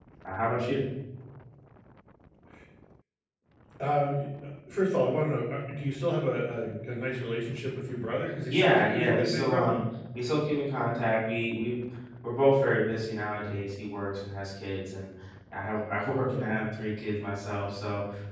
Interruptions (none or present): present